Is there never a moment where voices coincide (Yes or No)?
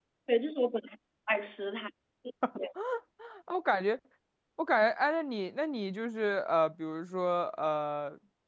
Yes